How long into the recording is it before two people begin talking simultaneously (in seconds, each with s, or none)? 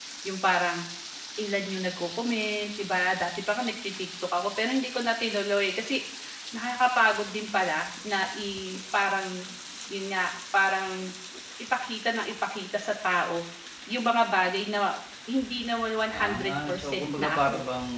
16.1 s